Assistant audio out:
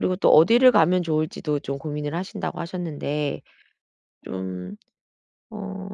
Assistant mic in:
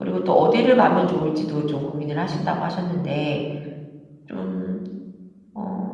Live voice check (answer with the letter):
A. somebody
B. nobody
B